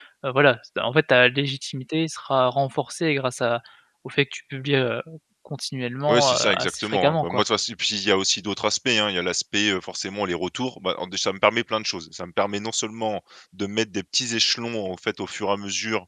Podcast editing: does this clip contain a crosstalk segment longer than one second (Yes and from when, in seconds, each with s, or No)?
Yes, from 6.1 s